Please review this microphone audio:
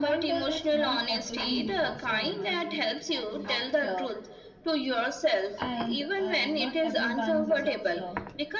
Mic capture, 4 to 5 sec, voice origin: echo only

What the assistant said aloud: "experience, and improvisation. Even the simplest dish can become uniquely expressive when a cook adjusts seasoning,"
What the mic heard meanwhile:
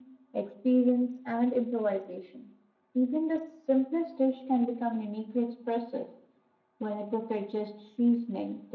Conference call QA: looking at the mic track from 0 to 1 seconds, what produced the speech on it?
echo only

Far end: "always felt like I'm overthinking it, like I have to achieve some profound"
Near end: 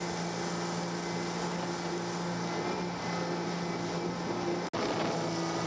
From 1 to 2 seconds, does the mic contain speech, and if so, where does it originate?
neither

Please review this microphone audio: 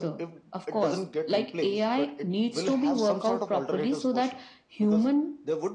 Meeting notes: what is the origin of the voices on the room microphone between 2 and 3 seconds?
echo only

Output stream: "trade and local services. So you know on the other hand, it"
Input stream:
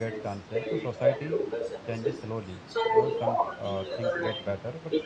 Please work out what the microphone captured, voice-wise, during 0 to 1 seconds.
both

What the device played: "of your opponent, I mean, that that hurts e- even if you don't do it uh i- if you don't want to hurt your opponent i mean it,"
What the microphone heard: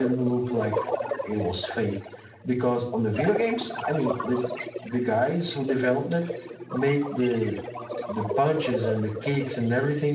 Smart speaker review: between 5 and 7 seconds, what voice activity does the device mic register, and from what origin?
both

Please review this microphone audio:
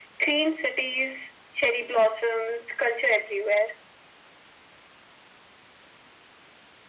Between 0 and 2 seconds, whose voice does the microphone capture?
echo only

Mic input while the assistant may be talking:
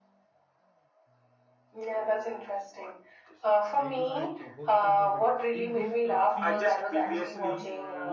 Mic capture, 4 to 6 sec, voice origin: both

